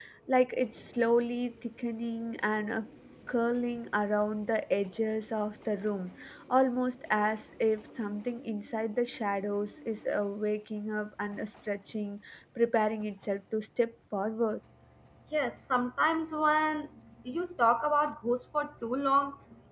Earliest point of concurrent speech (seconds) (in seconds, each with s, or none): none